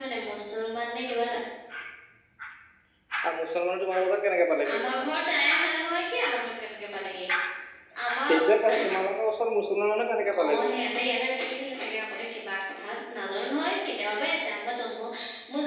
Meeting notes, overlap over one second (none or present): none